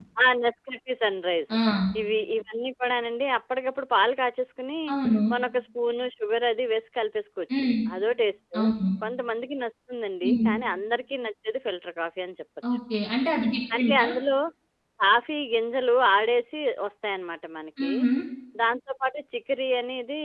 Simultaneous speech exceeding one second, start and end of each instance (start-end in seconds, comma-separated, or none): none